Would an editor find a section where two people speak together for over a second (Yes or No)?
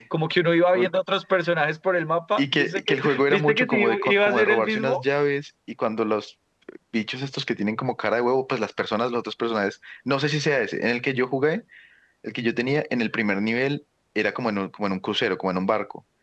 Yes